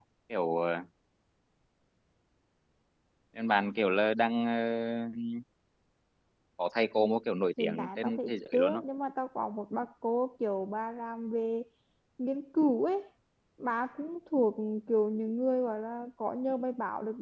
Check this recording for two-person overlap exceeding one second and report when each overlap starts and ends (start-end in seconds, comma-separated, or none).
7.6-8.8